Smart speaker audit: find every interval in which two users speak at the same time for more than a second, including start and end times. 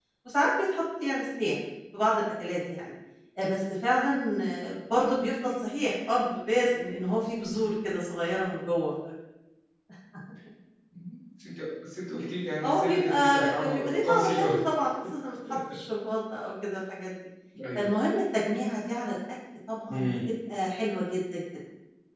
12.6-14.5

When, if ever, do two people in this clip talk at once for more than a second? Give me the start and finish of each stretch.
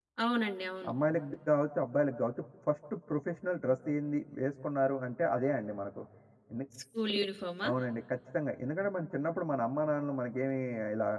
none

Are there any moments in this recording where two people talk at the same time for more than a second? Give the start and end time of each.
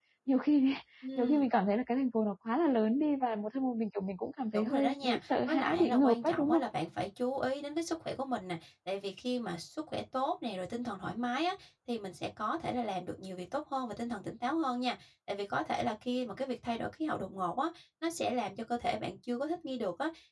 4.5-6.6

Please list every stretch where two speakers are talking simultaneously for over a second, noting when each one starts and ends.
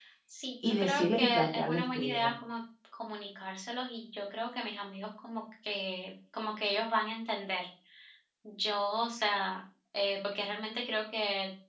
0.6-2.3

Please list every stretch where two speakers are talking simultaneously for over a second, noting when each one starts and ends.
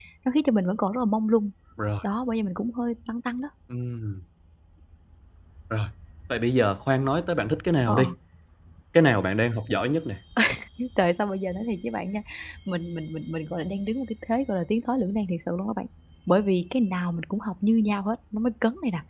none

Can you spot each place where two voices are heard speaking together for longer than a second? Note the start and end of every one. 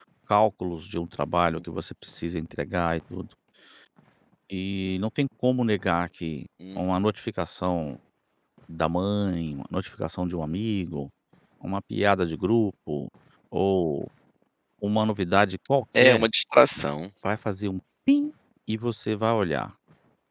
none

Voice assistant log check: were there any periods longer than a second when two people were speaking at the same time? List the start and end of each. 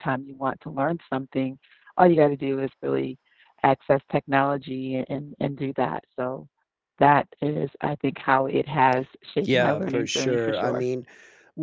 9.4-10.8

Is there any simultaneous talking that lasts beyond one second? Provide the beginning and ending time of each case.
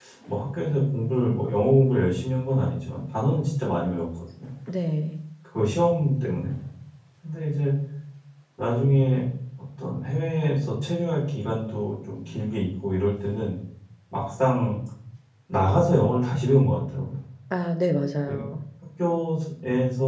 none

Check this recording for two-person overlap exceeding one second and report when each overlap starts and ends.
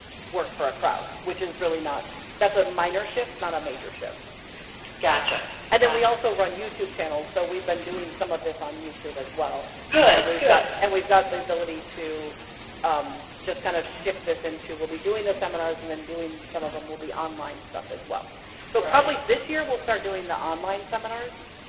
none

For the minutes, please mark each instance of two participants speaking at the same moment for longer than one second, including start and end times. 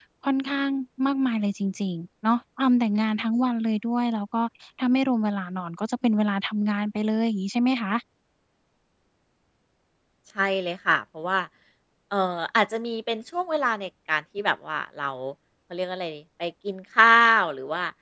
none

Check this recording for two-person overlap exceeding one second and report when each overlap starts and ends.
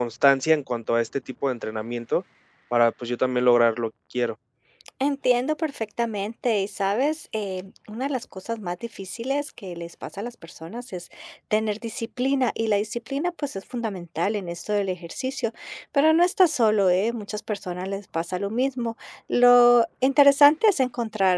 none

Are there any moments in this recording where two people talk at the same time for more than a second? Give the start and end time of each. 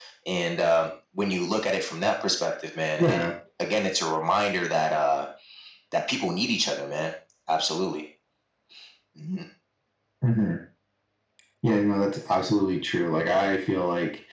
none

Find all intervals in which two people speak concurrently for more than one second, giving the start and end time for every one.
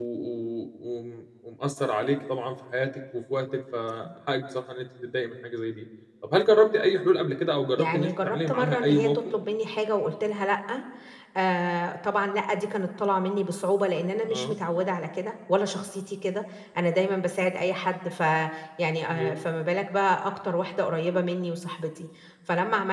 7.8-9.1

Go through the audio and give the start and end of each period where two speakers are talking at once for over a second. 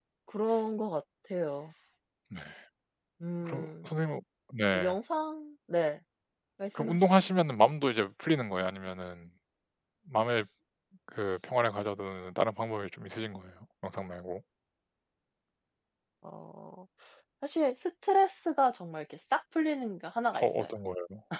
none

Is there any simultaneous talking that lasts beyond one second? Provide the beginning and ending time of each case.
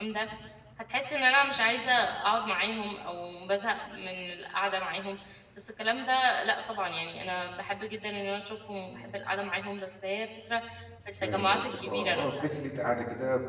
11.2-12.4

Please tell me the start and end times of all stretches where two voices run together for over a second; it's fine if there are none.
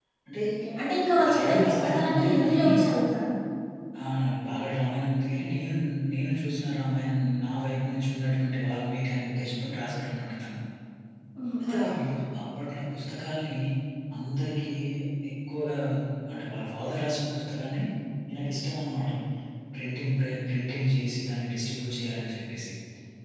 1.3-2.6

